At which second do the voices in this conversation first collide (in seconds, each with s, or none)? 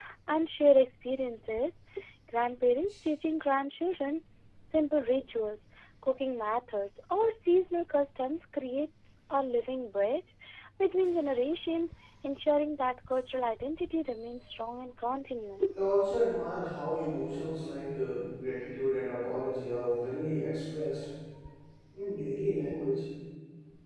none